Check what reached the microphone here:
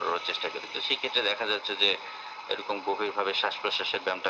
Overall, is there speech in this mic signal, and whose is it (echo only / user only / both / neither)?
echo only